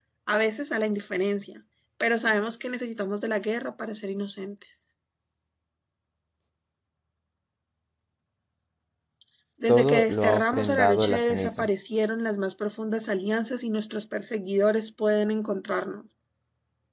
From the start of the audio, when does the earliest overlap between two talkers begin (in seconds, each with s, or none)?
9.7 s